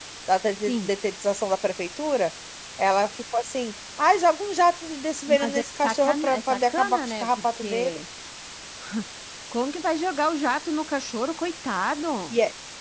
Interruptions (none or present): present